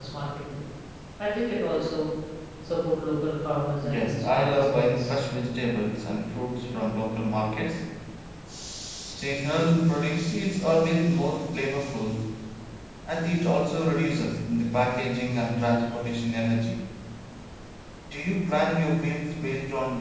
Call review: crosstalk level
present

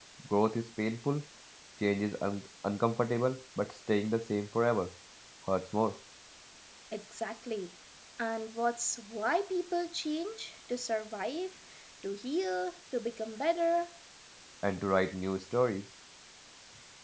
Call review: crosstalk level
none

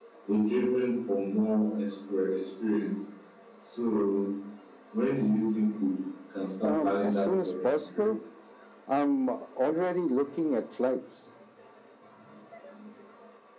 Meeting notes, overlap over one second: present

